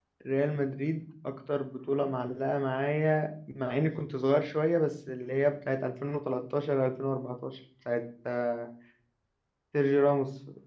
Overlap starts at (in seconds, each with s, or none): none